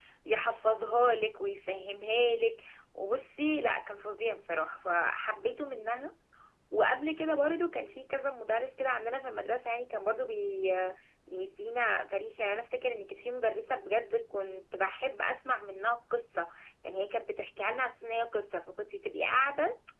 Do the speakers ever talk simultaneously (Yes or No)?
No